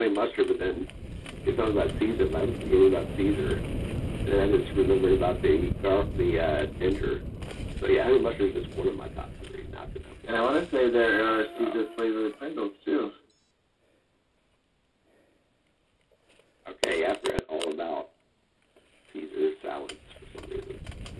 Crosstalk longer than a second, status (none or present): none